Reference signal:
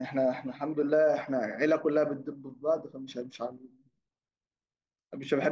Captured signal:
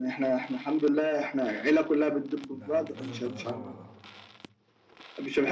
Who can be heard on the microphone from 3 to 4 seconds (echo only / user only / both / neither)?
both